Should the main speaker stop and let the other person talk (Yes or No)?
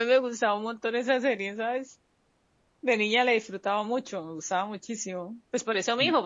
No